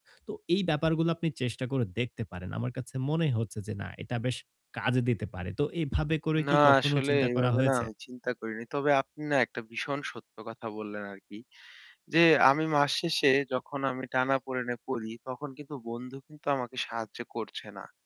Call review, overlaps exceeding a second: present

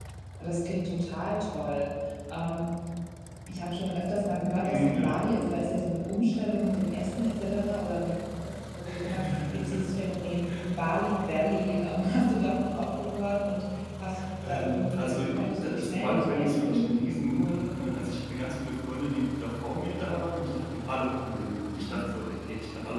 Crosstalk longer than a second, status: present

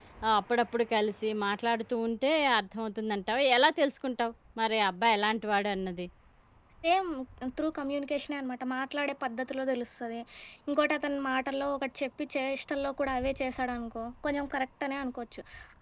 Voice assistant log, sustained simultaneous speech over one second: none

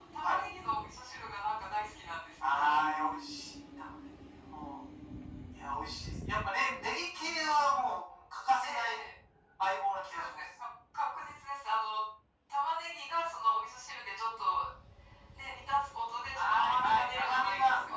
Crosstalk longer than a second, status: present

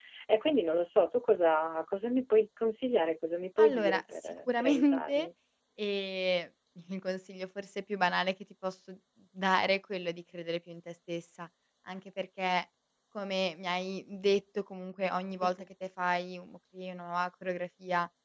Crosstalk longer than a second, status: present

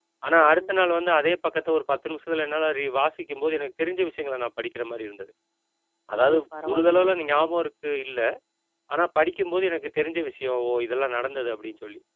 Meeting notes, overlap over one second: present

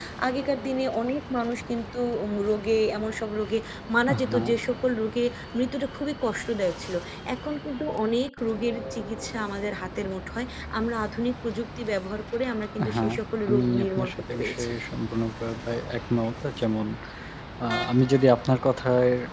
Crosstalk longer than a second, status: present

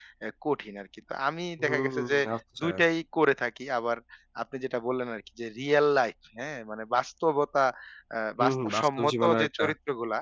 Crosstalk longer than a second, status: present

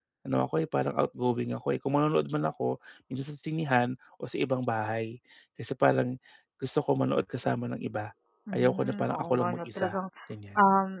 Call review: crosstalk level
present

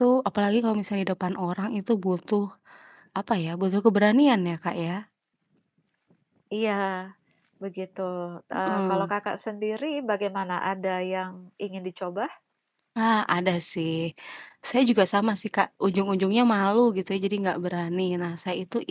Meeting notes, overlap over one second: none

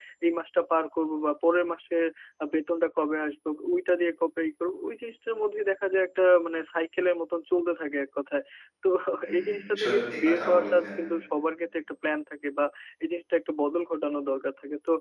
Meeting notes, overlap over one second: present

